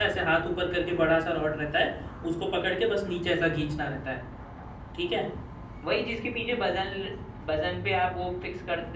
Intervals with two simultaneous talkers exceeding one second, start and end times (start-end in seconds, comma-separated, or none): none